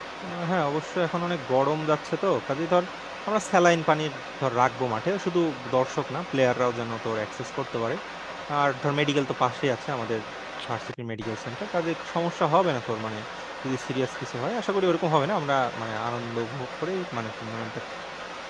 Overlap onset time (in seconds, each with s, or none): none